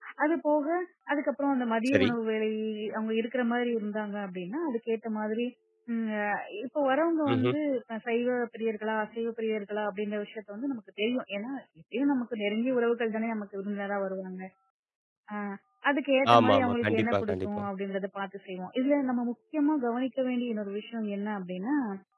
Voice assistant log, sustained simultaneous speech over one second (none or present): present